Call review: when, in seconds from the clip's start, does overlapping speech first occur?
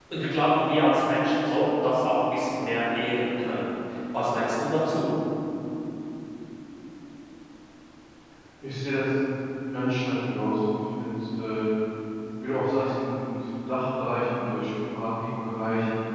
none

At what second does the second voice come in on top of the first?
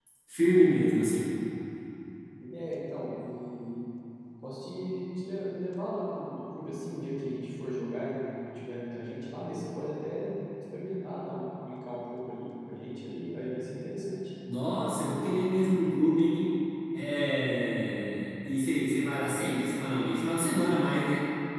none

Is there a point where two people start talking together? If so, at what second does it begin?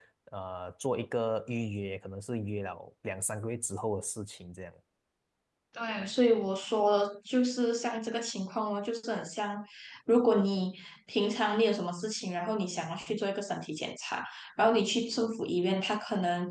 none

